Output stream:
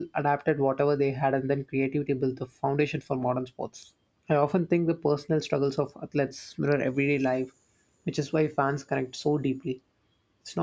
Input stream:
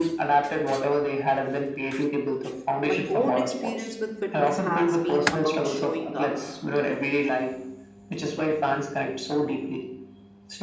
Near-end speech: present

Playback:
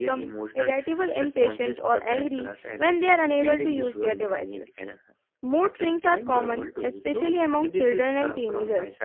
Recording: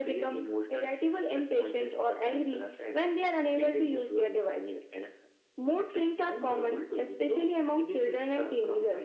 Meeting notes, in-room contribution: none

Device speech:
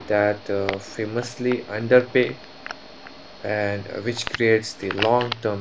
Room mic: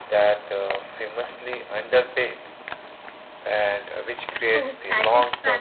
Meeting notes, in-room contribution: present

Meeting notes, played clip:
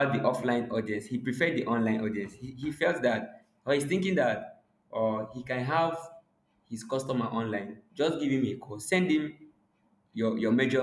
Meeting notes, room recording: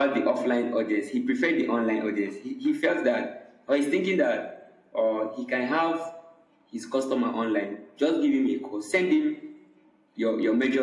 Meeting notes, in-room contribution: none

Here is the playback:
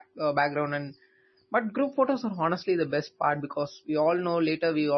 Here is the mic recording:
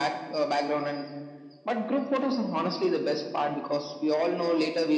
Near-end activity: none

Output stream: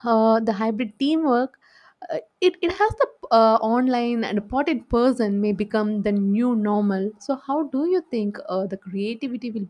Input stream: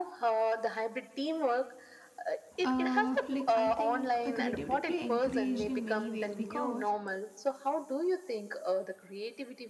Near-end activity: present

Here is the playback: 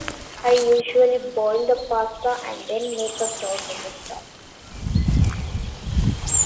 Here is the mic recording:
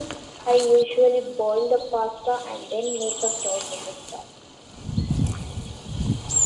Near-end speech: none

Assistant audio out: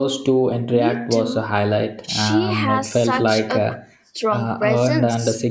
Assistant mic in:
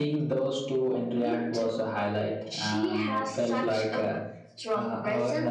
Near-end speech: none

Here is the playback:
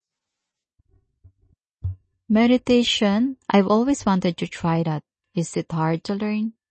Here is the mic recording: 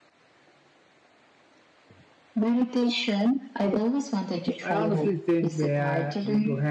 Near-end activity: present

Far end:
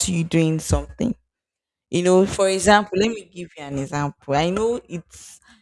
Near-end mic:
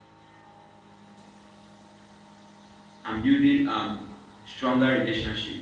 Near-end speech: present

